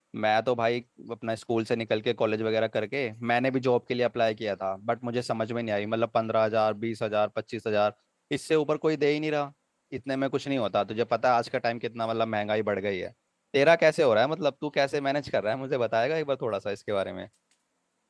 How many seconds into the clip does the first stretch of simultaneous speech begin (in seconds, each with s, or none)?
none